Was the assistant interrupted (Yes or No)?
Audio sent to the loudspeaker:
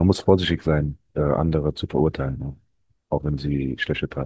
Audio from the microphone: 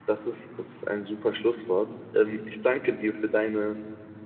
Yes